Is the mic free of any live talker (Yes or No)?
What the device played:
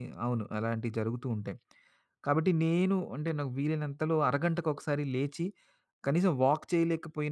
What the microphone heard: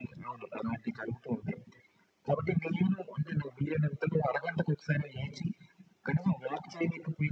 Yes